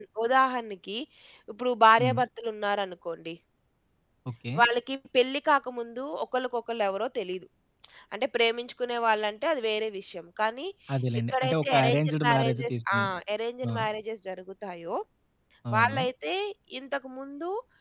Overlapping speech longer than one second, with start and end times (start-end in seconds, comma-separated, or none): 11.3-13.0